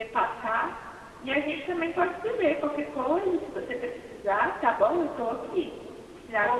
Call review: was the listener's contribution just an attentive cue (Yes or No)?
Yes